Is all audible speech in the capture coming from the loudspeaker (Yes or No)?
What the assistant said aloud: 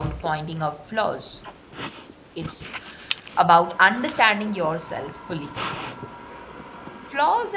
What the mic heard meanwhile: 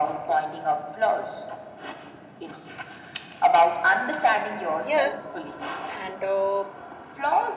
No